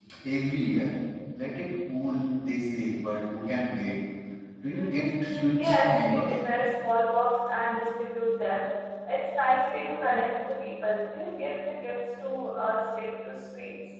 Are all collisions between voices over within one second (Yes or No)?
No